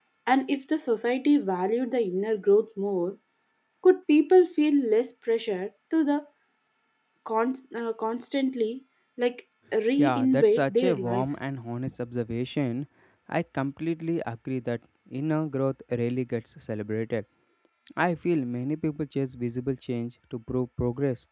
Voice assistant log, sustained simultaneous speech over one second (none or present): present